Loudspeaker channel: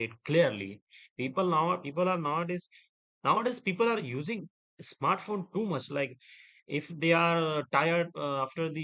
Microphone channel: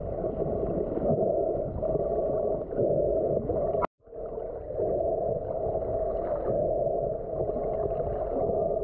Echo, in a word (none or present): none